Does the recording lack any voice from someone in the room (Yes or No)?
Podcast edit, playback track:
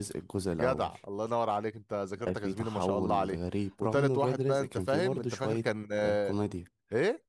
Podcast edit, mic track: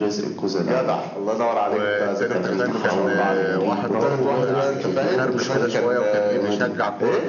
No